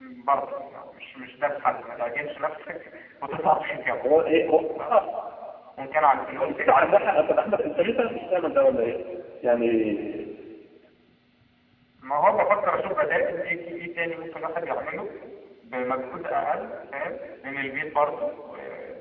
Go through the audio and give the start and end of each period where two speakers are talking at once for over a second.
6.4-7.9

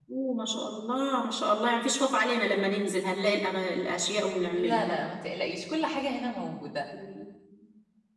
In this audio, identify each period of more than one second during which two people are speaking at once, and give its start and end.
none

